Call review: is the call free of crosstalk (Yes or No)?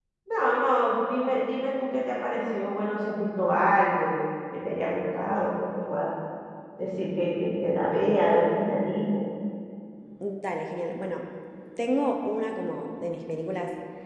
Yes